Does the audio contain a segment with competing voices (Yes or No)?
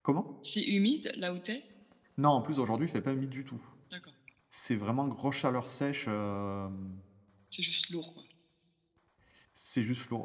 No